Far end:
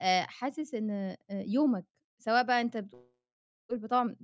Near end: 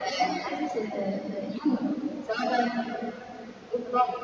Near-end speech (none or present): none